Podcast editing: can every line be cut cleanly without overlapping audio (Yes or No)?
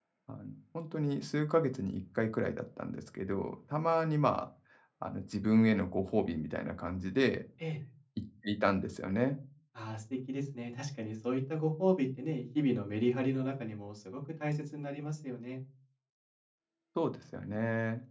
Yes